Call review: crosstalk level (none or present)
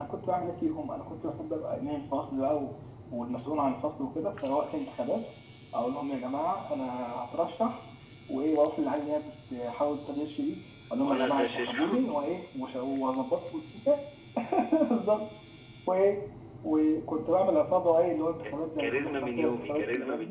present